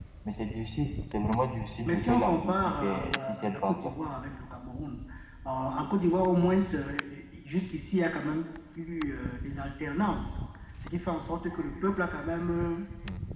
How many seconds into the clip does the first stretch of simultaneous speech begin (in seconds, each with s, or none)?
1.8 s